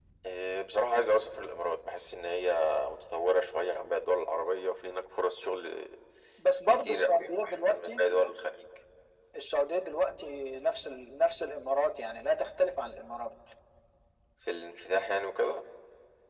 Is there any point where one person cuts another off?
Yes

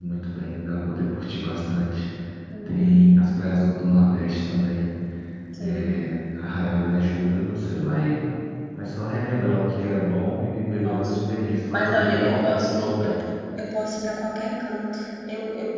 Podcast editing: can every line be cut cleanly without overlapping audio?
No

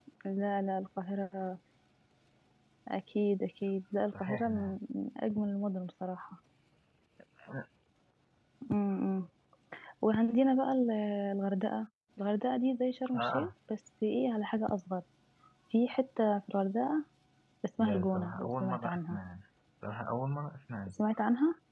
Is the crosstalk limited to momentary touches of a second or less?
No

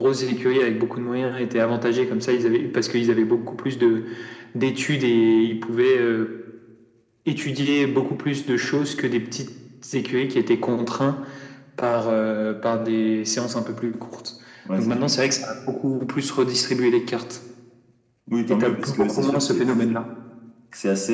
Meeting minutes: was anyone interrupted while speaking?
Yes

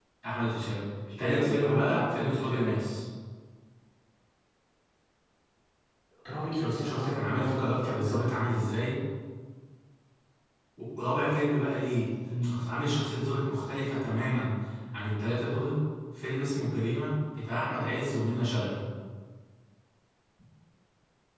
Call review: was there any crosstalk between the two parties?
Yes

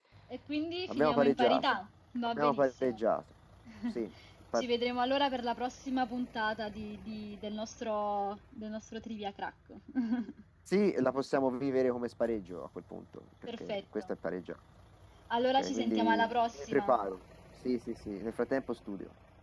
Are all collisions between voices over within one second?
No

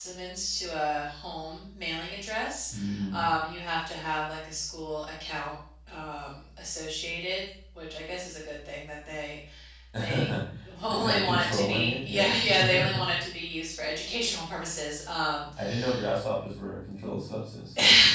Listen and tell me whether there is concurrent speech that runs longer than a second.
Yes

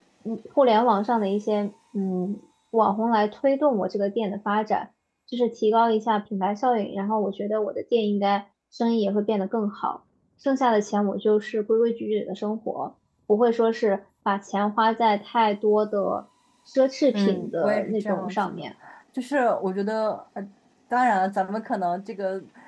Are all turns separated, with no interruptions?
No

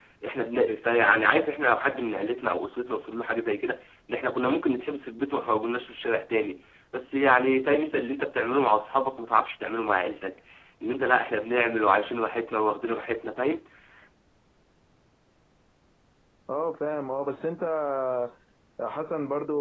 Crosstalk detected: No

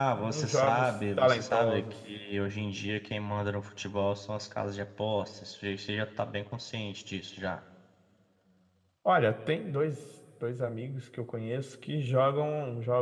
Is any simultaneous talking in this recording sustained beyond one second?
Yes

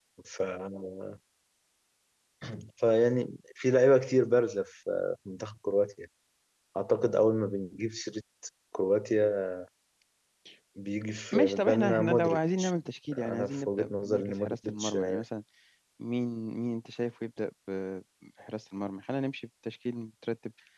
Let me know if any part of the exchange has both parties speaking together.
Yes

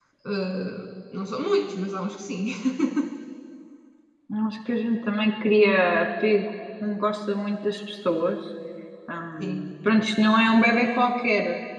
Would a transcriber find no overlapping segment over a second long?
Yes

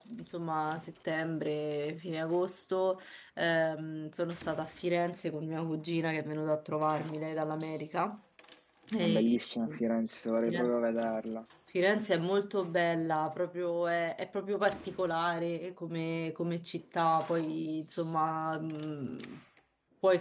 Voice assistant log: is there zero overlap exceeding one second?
Yes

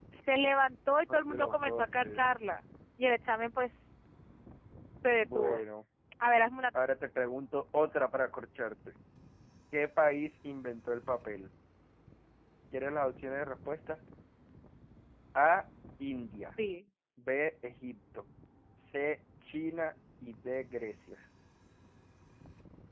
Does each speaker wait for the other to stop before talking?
No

